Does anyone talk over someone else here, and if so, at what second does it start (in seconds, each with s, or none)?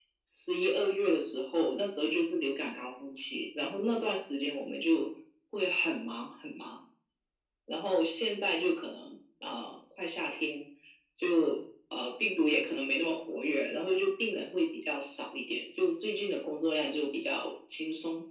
none